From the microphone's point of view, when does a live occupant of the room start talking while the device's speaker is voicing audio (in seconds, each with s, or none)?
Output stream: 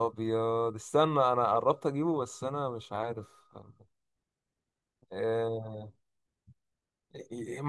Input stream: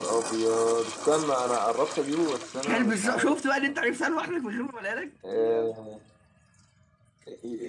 2.6 s